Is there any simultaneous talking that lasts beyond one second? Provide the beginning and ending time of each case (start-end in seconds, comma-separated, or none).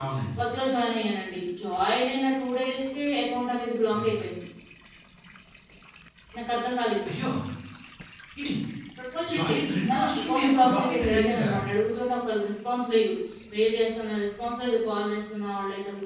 9.9-11.5